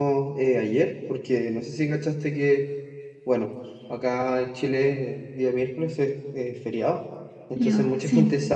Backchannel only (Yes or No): Yes